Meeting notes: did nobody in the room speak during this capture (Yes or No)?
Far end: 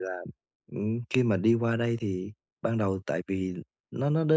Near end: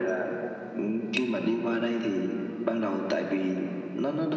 Yes